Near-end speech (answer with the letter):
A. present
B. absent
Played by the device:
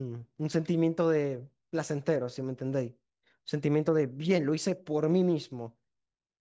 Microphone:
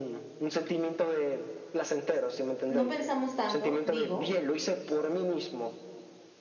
A